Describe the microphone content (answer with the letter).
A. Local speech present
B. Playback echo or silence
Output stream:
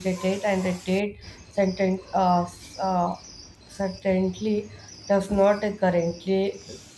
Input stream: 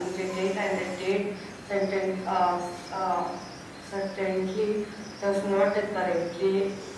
B